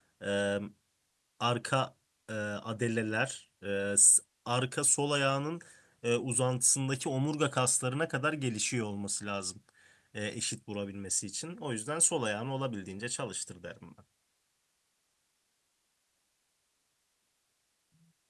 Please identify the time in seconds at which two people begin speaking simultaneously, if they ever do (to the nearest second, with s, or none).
none